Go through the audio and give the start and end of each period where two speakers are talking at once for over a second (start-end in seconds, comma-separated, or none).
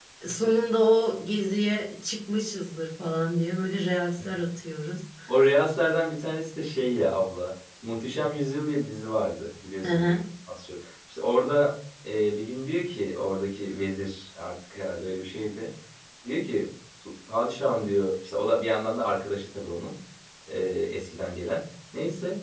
none